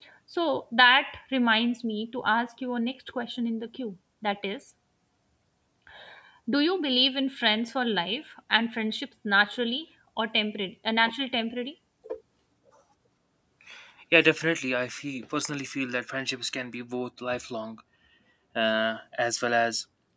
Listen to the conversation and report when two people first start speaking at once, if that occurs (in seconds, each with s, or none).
none